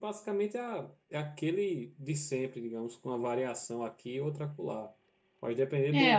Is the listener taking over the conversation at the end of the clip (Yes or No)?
Yes